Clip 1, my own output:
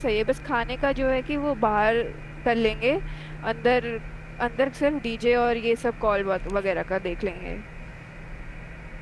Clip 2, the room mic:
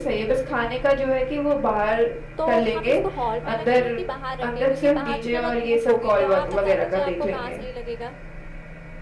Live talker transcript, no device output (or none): तो हम इसको हॉल में रखें कि बाहर रखें क्योंकि बाहर तो जरा धूप होगी तो आप बता दीजिए आपको कहाँ सही लगेगा